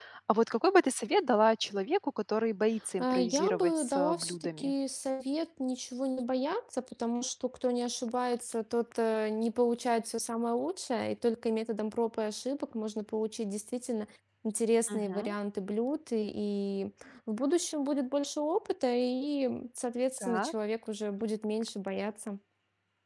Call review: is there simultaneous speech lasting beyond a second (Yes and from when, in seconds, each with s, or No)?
Yes, from 3.0 s